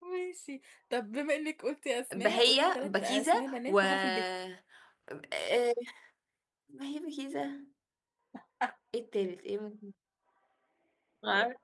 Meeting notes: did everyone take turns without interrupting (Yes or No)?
No